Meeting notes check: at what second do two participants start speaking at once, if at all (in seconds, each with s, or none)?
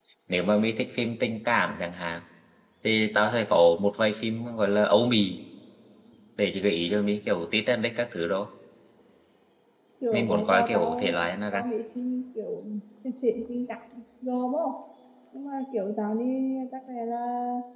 10.1 s